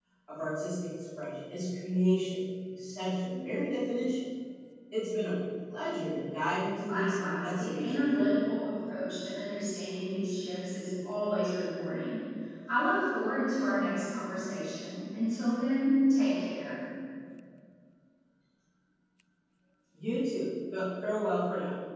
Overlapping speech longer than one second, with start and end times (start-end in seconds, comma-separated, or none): 6.8-8.3